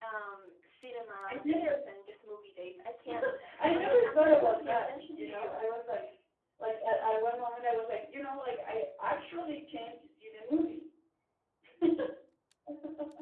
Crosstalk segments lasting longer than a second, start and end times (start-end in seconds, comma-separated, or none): 3.7-5.7